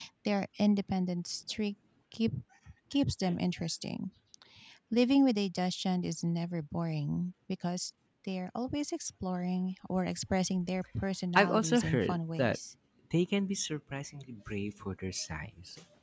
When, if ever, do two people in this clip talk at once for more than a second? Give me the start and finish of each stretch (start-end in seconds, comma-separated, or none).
11.3-12.6